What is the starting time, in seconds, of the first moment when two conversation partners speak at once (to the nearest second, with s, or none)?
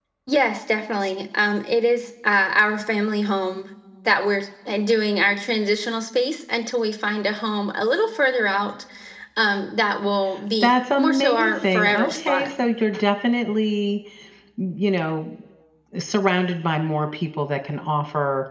11 s